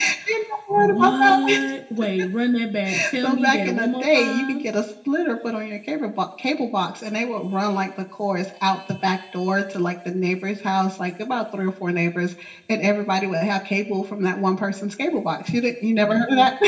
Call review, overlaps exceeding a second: present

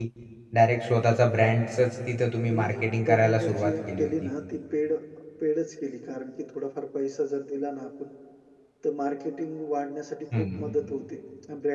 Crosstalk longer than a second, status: present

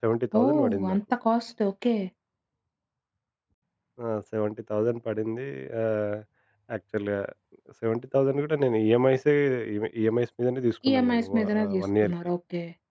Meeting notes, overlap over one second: present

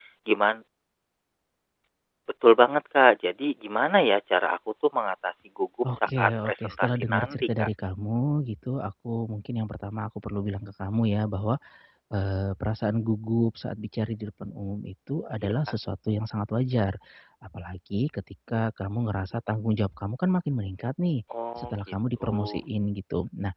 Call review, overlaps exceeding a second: present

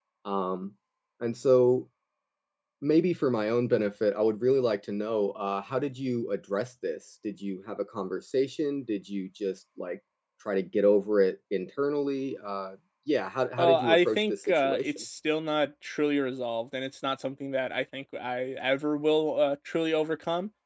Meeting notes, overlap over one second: present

